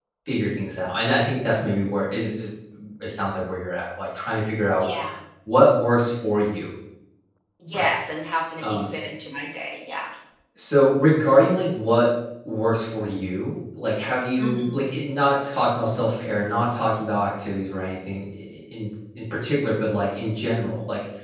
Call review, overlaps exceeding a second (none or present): none